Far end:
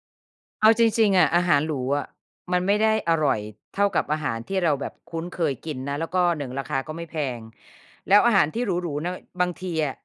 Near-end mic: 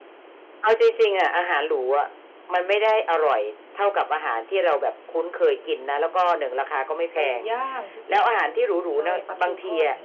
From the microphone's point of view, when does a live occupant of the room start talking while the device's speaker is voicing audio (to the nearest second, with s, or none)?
7 s